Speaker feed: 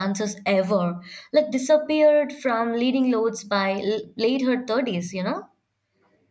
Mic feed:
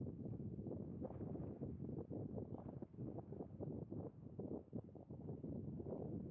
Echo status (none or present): none